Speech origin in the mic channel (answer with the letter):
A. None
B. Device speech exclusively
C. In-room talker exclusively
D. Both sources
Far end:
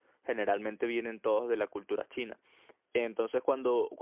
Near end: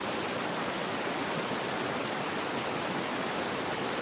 A